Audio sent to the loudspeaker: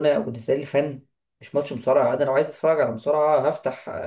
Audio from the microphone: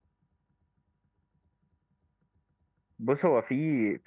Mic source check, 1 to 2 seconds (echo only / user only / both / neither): neither